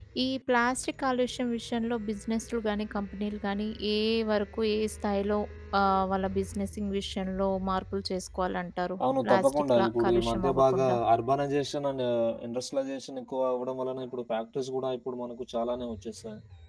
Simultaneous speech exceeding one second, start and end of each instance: 9.2-10.9

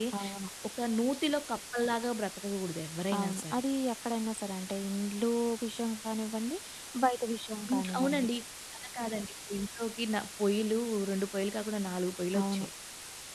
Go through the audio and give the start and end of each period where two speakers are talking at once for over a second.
none

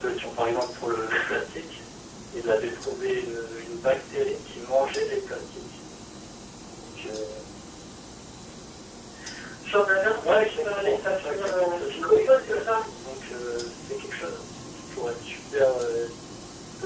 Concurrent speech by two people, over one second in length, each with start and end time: 10.1-12.8

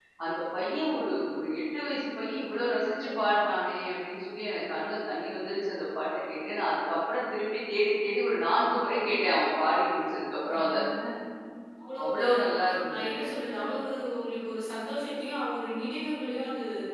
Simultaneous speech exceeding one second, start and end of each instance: none

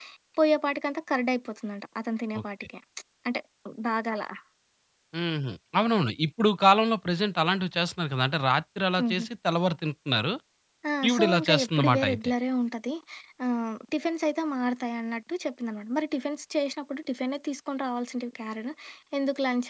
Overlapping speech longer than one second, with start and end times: 11.1-12.3

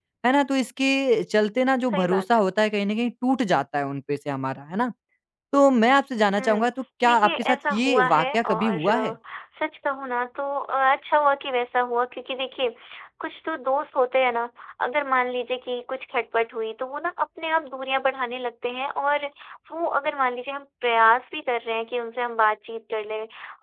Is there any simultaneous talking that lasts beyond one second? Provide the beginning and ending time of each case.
7.0-9.1

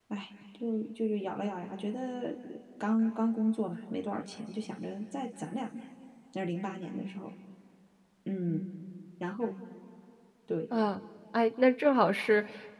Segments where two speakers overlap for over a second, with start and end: none

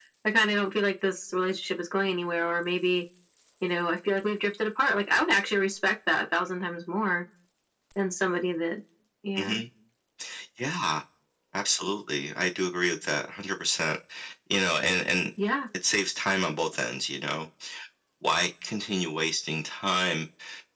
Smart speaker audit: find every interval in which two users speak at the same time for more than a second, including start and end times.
none

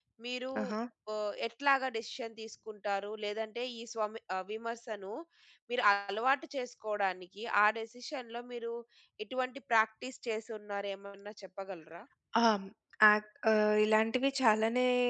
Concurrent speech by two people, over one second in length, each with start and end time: none

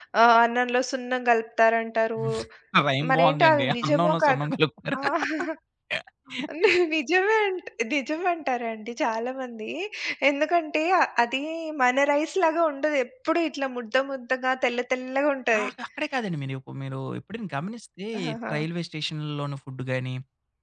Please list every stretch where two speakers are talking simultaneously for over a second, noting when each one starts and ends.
3.1-4.5

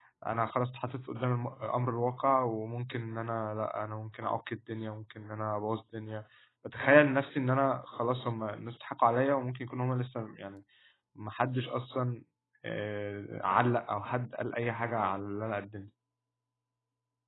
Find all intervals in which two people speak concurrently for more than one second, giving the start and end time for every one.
none

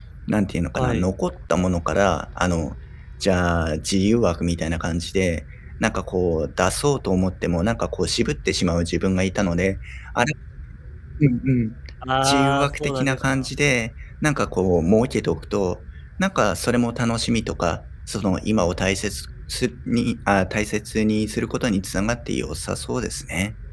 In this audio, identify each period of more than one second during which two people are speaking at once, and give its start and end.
12.2-13.5

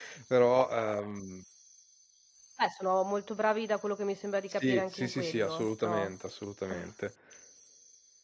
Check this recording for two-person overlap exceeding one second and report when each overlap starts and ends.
4.5-6.1

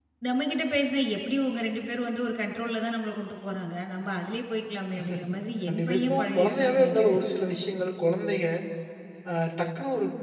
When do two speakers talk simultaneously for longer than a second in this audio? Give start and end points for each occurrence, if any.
5.7-7.2

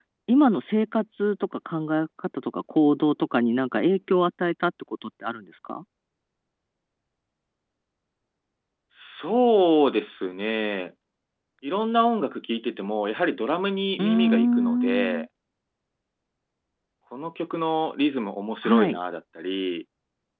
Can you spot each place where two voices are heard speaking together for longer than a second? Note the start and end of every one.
14.0-15.2

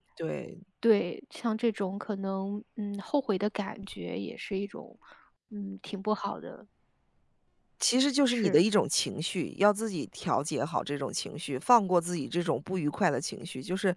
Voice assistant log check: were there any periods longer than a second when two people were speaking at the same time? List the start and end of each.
none

